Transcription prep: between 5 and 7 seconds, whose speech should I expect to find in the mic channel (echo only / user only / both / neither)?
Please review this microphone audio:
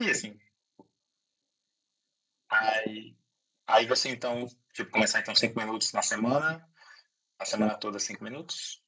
echo only